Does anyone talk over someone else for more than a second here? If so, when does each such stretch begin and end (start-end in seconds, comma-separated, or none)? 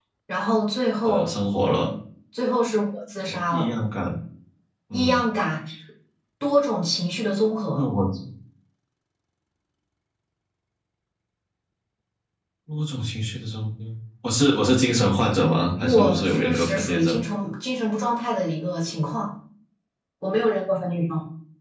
15.8-17.2